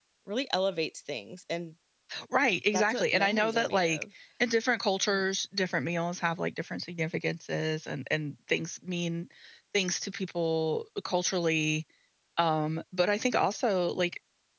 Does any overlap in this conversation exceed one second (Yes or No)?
Yes